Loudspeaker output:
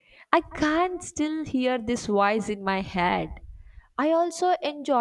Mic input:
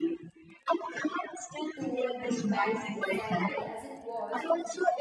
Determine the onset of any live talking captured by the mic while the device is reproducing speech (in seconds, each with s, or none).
1.8 s